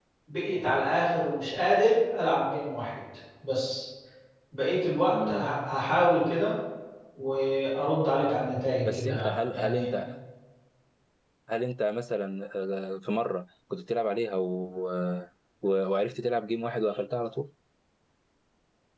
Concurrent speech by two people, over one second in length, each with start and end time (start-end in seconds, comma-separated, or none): 8.8-10.1